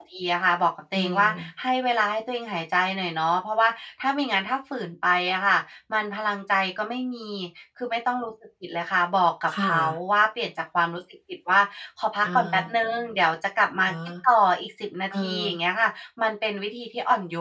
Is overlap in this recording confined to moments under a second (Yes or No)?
Yes